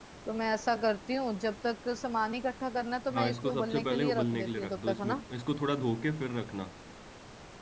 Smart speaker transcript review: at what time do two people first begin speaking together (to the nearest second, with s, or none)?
3 s